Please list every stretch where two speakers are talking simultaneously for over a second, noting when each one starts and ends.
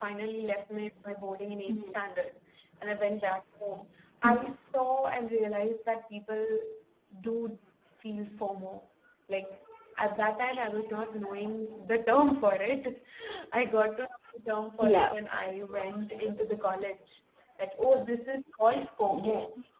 none

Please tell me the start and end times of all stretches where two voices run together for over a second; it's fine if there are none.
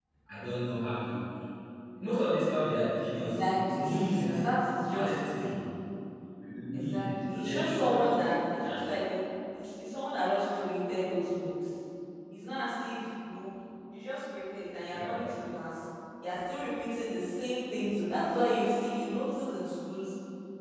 3.1-4.4, 6.7-8.1

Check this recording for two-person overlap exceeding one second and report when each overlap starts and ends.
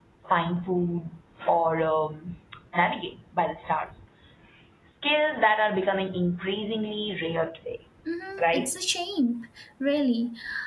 none

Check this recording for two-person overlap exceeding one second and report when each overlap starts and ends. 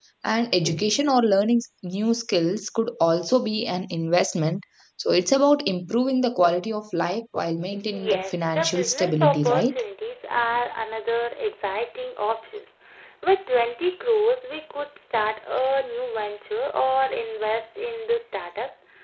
7.9-9.8

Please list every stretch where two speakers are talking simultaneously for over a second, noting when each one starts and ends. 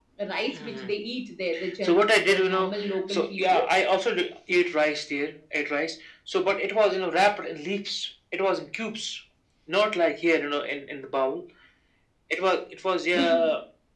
1.8-3.6

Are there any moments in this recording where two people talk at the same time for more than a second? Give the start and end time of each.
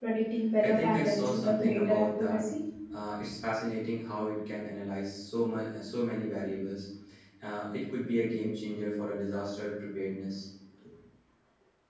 0.6-2.4

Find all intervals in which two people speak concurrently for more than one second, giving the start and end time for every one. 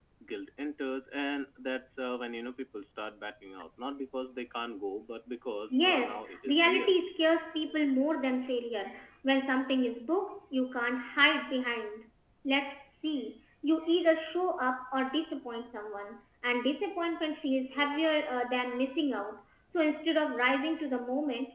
5.7-7.0

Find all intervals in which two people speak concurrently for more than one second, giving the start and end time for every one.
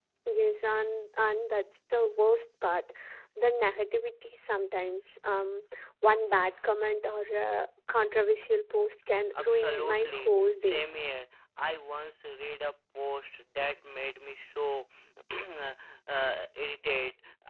9.4-10.8

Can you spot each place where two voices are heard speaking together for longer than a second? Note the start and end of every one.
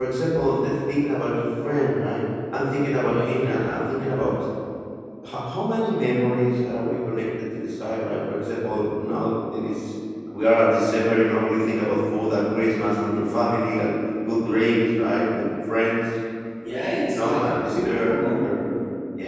17.1-18.5

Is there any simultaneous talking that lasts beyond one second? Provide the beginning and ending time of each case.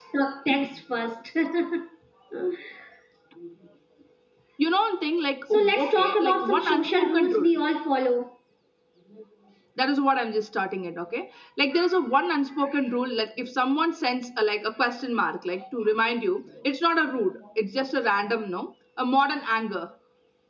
5.5-7.5

